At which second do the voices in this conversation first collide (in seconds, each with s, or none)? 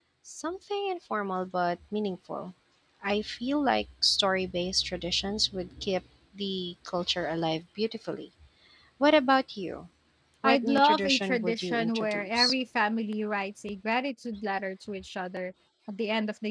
10.4 s